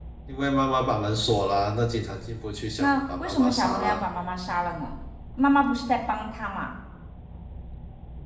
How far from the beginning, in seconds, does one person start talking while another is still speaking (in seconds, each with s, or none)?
2.8 s